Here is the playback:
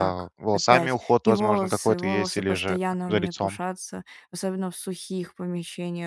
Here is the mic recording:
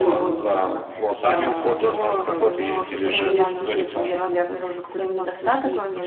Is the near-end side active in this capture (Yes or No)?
Yes